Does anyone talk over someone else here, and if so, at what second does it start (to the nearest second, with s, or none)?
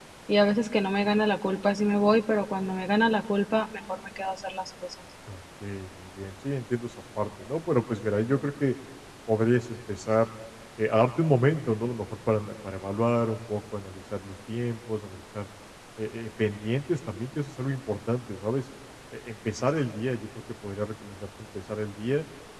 none